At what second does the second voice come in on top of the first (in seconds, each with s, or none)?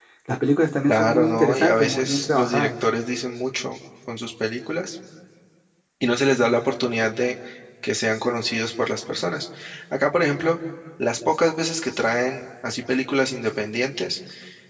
0.9 s